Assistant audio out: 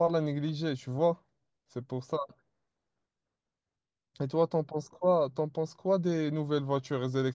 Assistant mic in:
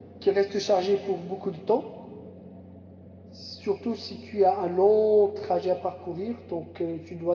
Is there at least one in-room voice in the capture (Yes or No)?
Yes